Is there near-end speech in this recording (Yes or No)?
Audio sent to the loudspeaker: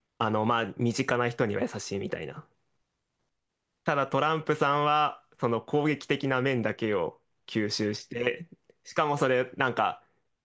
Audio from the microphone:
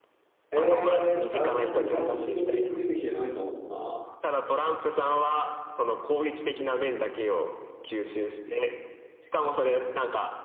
Yes